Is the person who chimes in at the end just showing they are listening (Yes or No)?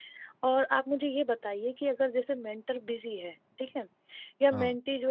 Yes